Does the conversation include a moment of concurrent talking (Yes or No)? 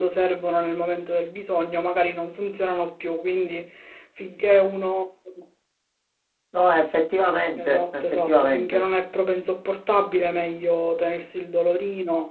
Yes